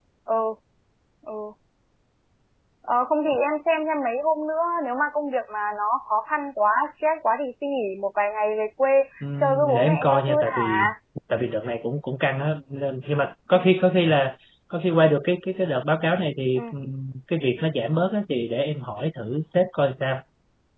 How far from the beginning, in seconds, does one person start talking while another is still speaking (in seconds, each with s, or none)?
9.2 s